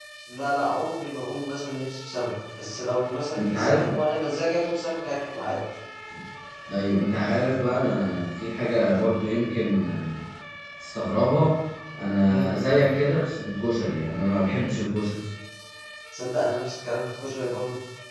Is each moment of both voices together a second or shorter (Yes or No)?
Yes